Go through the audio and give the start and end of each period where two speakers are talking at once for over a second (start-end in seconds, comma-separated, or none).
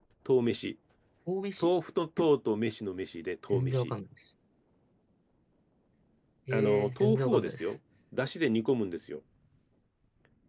6.5-7.7